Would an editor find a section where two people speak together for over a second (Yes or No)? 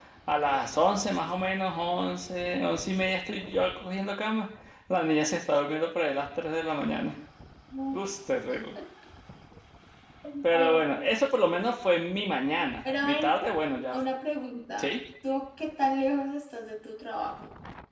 No